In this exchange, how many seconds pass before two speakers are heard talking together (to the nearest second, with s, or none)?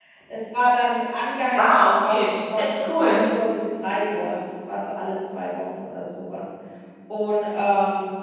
2 s